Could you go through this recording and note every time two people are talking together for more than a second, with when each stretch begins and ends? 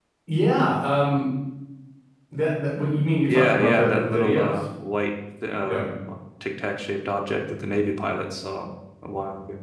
3.3-4.5

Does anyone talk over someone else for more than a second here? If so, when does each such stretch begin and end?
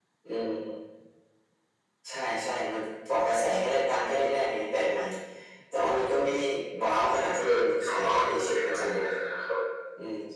7.3-9.1

